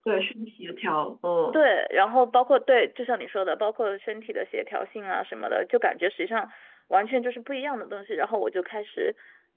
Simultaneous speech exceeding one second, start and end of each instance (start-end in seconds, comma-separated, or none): none